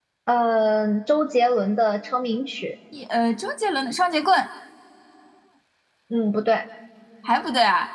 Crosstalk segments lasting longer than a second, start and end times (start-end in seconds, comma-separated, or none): none